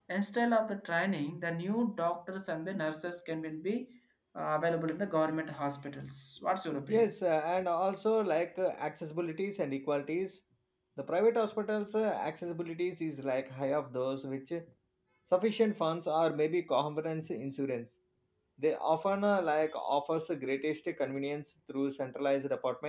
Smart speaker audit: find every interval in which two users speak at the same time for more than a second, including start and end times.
none

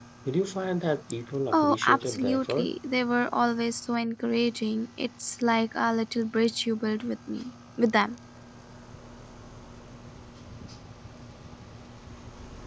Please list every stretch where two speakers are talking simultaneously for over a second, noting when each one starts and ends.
1.5-2.7

